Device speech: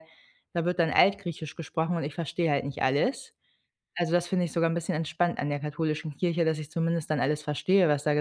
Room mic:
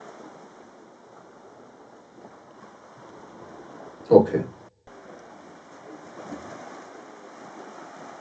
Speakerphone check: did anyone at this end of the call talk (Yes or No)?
Yes